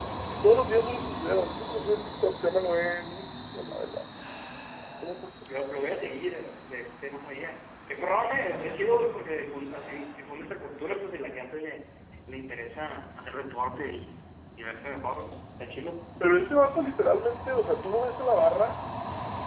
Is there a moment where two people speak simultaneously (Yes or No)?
No